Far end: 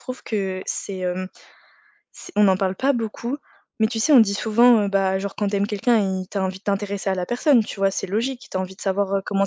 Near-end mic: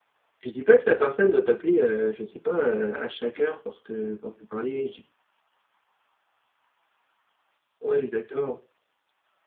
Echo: none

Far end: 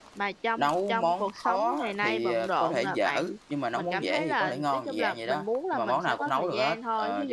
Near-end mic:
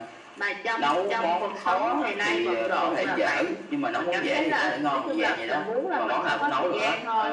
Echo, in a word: present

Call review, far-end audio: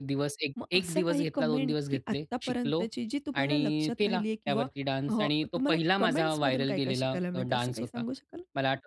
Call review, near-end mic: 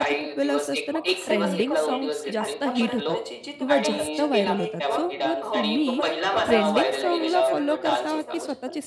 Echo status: present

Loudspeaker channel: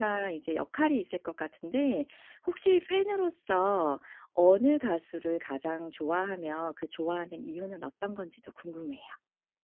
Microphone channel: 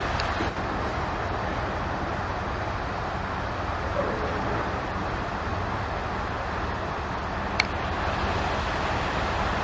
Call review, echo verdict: none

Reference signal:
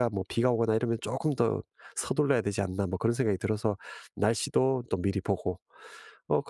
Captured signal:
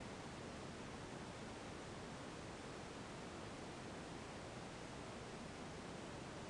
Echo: none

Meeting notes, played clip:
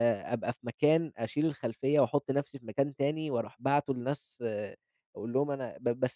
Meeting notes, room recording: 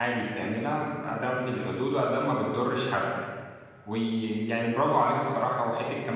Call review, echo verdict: none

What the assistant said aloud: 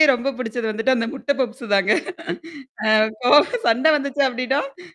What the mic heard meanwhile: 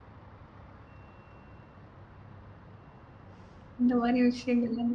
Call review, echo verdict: none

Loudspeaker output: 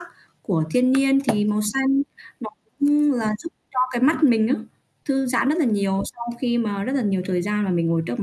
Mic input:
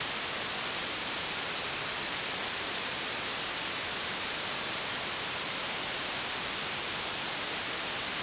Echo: none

